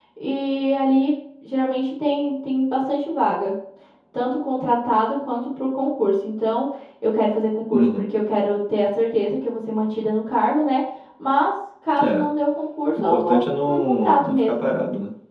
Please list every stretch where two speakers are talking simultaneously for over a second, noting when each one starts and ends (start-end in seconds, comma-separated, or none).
12.9-14.7